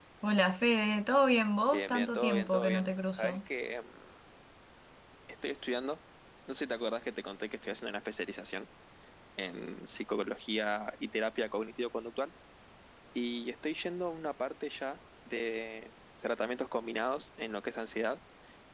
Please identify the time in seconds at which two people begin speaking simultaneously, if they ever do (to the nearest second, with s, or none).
2 s